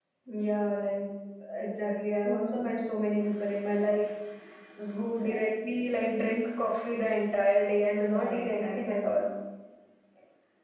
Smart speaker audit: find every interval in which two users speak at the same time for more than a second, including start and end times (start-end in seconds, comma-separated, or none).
8.0-9.2